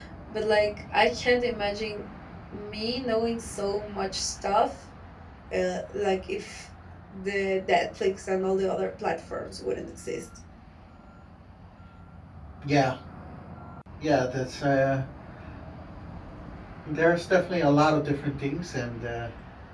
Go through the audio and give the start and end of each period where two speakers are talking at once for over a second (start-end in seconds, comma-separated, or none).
none